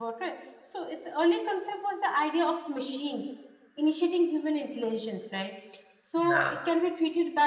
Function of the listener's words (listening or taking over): listening